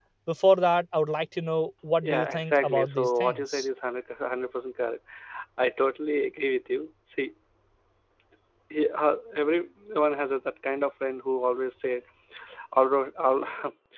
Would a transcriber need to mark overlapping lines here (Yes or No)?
Yes